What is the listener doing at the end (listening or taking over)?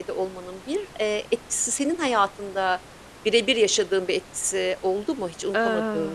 taking over